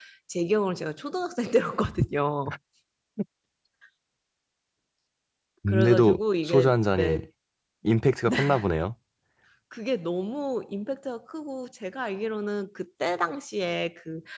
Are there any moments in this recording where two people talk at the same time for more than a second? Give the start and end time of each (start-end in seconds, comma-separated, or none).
5.7-7.2